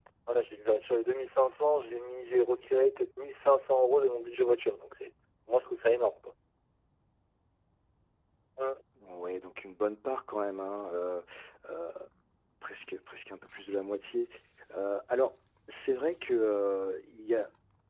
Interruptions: none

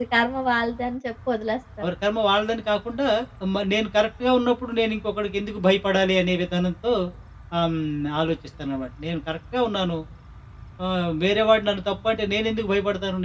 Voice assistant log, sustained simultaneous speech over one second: none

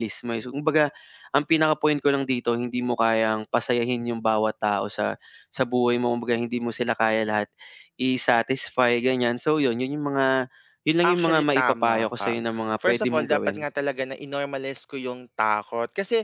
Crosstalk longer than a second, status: present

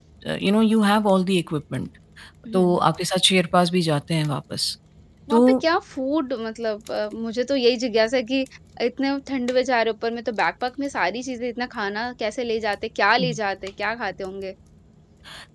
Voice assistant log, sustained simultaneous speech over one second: none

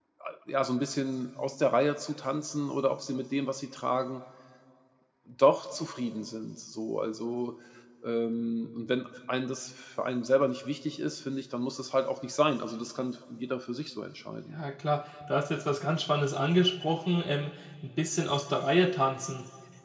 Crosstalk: none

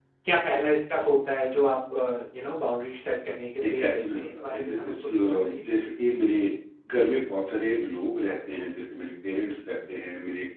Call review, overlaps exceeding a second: present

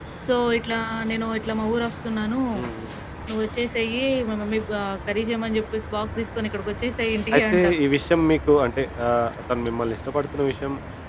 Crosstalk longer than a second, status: none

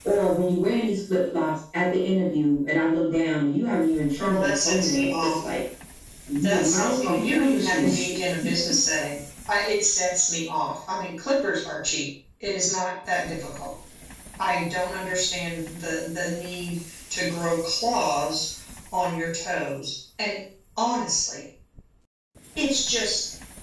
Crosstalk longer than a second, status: present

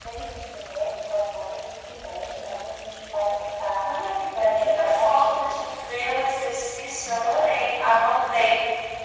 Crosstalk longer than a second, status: present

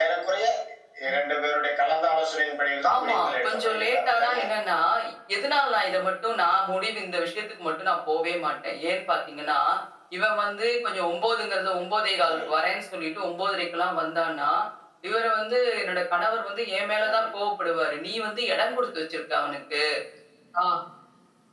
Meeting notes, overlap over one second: present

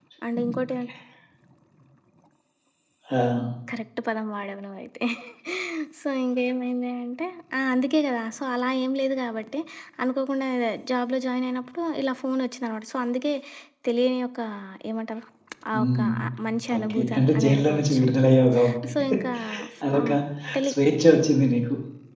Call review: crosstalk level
present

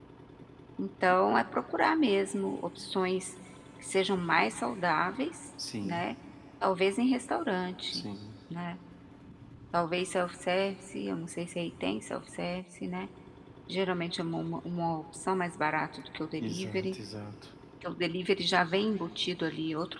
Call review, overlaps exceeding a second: none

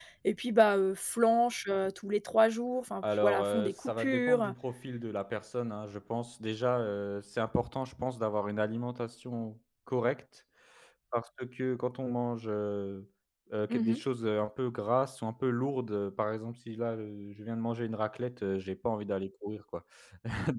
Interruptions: present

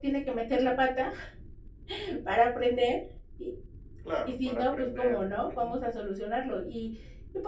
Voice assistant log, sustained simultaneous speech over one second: present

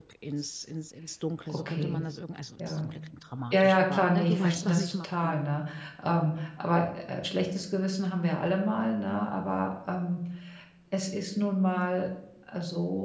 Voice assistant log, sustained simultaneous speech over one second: present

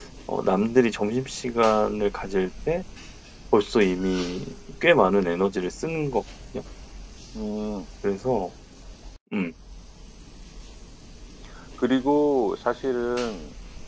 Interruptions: none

